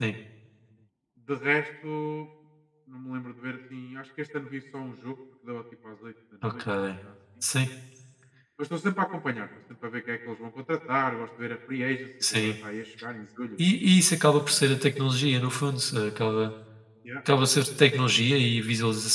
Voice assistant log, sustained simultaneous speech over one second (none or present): none